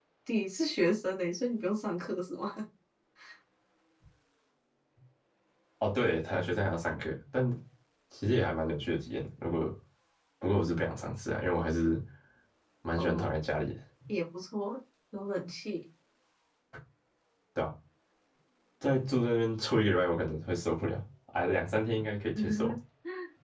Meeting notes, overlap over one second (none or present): none